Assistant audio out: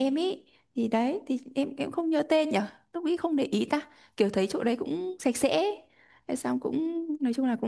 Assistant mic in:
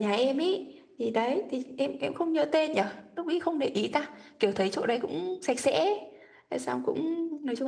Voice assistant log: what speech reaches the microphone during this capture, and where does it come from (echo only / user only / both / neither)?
echo only